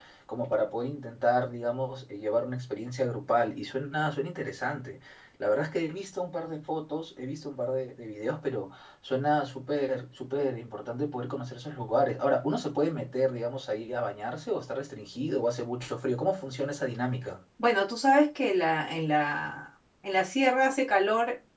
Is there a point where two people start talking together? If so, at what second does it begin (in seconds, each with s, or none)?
none